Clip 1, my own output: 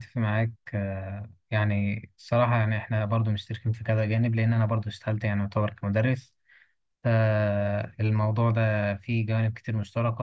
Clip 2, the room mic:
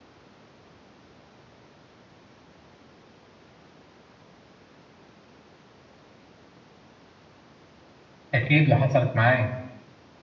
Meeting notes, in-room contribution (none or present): present